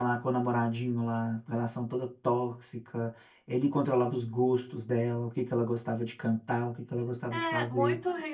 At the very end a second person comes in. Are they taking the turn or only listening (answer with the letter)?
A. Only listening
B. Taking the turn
B